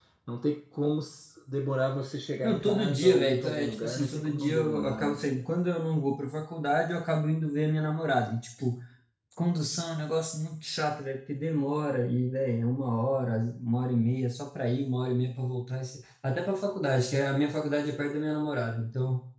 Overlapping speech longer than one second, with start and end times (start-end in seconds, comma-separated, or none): 2.4-5.2